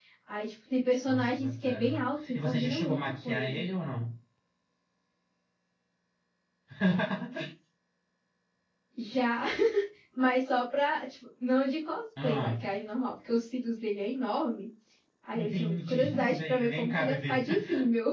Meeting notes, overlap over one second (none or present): present